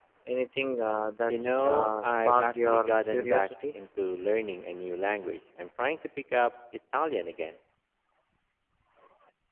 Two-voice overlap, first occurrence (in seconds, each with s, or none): 1.3 s